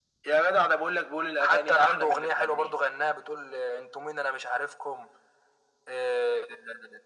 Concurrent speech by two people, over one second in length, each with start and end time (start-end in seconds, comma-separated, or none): 1.4-2.7